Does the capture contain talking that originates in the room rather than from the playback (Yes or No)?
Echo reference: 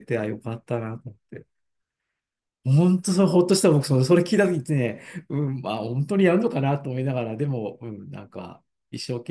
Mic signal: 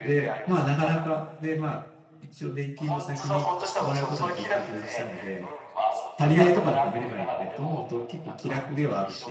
Yes